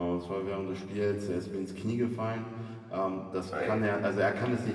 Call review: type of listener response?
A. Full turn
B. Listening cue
B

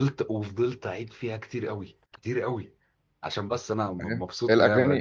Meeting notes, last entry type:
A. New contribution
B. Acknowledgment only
A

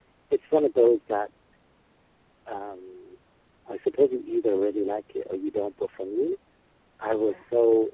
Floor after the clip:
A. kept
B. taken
A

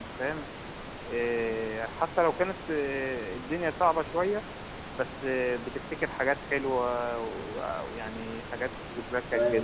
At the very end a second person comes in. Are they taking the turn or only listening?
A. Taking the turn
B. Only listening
B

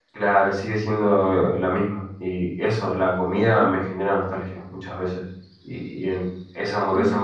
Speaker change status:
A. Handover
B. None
B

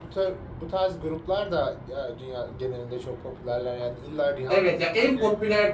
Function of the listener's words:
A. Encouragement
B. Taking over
B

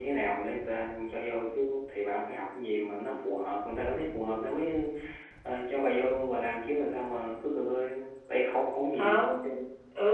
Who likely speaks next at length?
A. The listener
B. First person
A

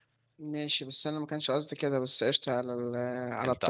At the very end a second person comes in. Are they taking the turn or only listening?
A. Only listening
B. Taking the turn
A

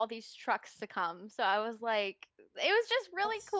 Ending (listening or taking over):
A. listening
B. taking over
A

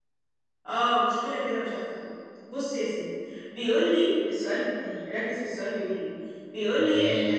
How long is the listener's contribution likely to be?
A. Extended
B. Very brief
B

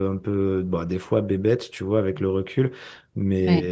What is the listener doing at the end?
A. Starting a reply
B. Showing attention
B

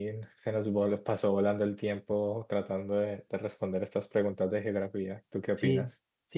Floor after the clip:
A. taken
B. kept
A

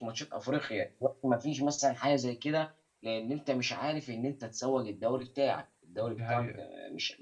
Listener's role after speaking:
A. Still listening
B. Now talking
A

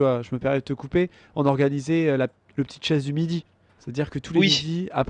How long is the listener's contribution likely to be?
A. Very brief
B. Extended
A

